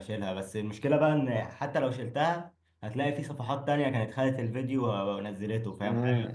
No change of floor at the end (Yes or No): No